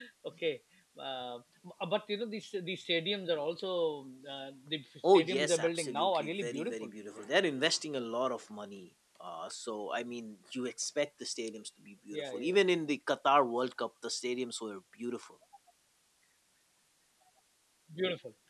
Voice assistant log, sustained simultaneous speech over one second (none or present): present